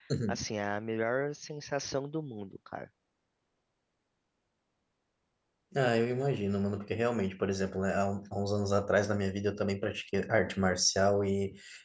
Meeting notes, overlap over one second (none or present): none